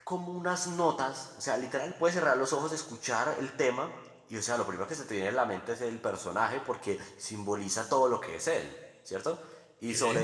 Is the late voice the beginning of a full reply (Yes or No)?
No